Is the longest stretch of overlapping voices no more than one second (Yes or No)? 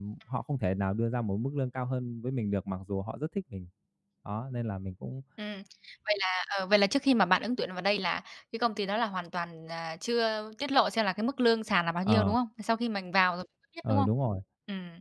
Yes